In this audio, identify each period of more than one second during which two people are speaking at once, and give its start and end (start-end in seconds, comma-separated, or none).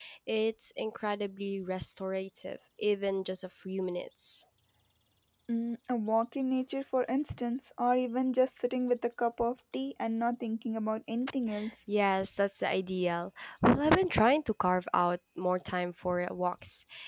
none